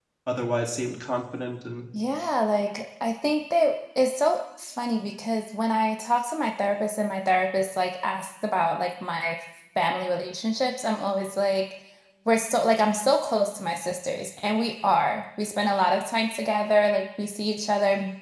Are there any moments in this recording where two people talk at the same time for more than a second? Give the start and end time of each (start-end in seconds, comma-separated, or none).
none